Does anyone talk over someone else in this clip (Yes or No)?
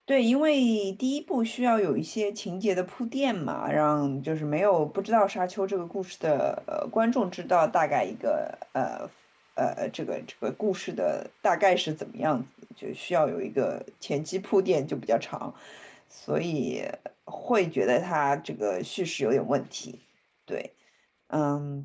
No